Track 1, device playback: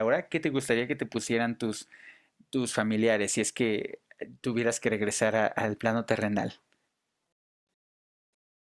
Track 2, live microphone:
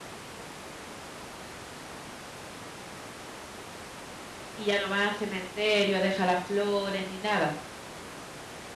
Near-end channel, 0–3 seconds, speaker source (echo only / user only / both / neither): neither